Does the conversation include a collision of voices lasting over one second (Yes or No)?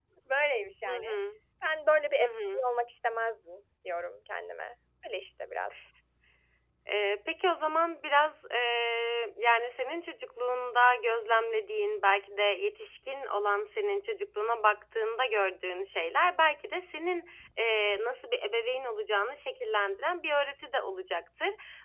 No